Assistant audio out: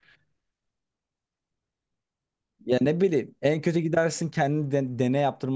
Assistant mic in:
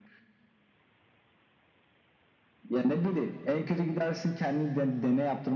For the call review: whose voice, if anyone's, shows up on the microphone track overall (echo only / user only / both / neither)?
echo only